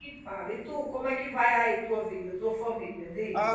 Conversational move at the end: taking over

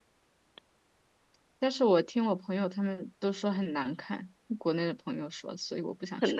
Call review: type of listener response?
taking over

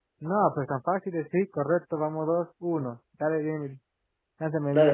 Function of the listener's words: taking over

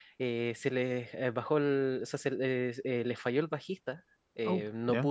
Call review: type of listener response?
listening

